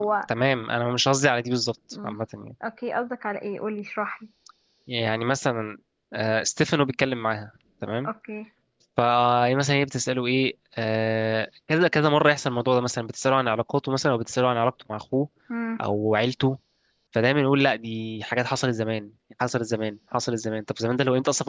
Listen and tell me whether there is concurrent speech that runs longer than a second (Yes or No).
No